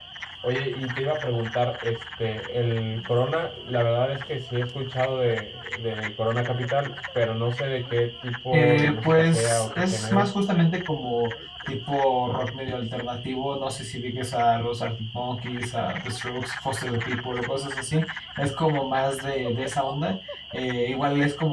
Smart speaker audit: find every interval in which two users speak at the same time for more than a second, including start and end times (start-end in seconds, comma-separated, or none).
8.5-10.3